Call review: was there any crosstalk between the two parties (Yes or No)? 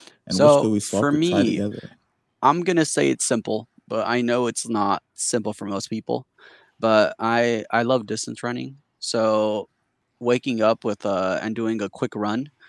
Yes